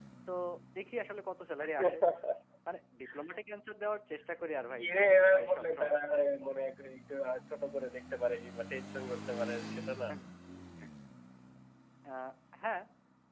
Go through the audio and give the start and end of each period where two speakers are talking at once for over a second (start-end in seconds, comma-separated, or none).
4.6-6.0